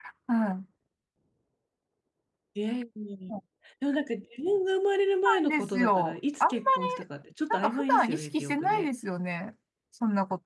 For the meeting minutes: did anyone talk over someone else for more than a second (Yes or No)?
Yes